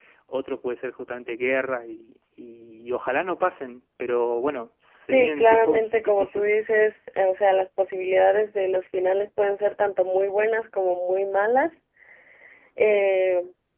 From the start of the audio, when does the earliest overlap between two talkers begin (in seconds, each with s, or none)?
5.1 s